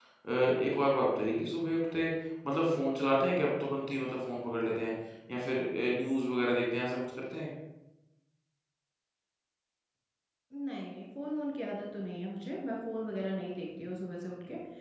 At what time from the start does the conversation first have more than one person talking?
none

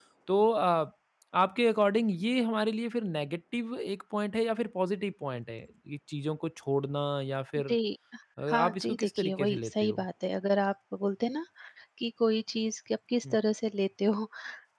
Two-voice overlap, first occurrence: 8.5 s

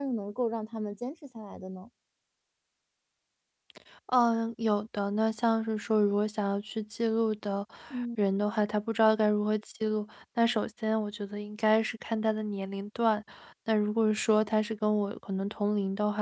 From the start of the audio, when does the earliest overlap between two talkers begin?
none

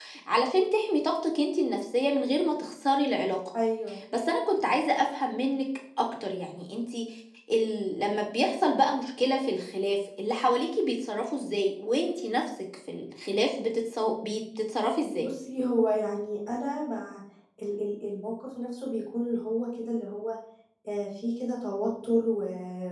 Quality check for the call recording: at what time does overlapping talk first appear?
none

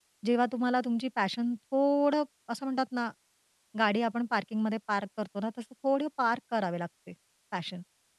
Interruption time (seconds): none

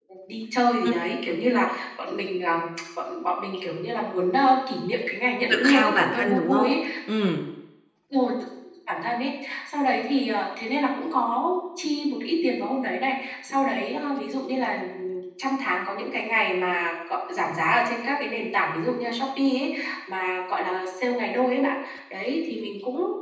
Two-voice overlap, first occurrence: 5.5 s

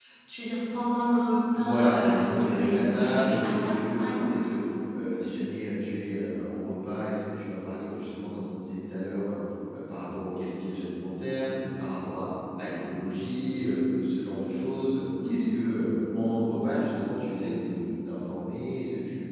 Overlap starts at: 1.6 s

